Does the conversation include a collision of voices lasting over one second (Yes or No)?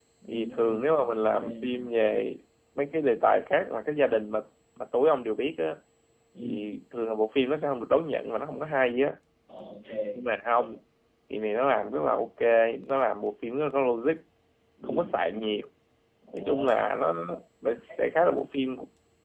Yes